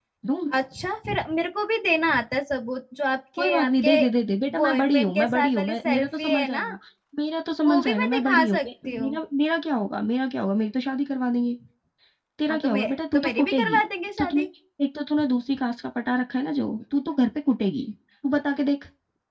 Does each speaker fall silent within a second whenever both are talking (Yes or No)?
No